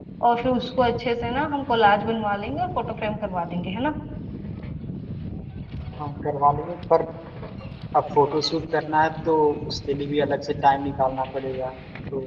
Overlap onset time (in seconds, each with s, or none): none